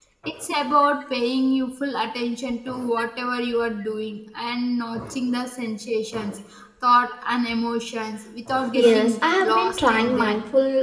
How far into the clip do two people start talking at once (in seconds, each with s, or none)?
8.7 s